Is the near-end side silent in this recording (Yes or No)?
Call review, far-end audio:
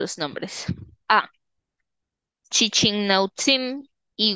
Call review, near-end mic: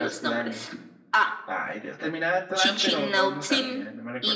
No